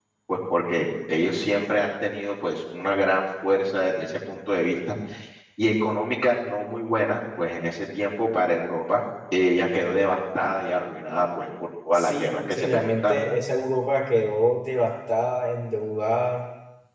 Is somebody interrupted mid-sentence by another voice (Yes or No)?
Yes